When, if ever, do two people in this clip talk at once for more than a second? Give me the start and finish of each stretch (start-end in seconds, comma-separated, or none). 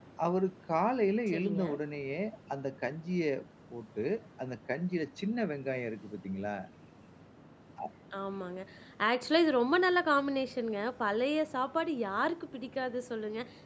none